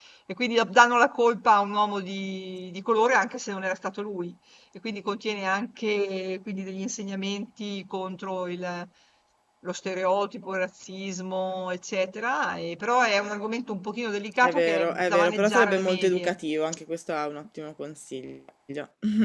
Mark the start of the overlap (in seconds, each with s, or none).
14.4 s